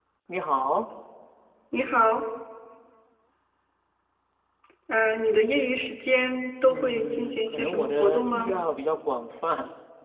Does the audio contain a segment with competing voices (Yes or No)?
Yes